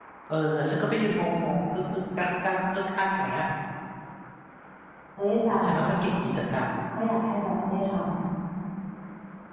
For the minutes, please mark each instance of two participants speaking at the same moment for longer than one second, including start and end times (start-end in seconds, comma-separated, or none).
none